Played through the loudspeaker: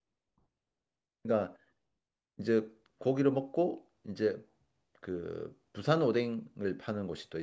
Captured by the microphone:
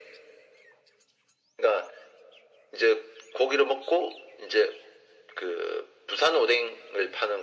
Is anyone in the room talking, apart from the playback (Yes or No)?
No